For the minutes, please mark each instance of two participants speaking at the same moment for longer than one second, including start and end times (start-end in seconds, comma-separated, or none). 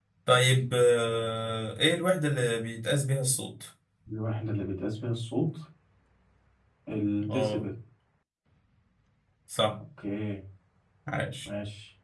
none